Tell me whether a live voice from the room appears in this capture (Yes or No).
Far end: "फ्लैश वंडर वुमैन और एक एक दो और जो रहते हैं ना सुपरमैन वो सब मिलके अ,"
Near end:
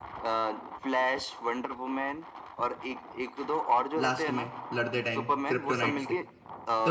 Yes